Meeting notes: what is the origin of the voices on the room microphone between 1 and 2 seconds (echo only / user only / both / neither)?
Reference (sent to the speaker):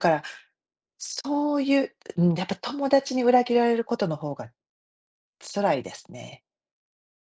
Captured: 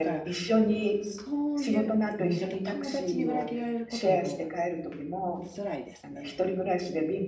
both